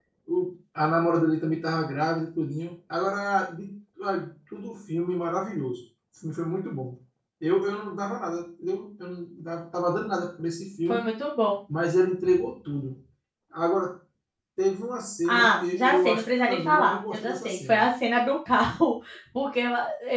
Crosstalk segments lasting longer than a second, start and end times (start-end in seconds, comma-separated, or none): 15.3-17.9